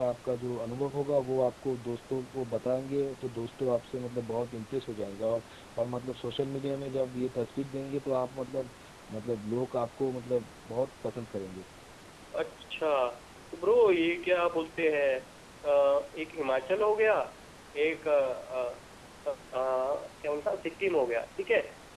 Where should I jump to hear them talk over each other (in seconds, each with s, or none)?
none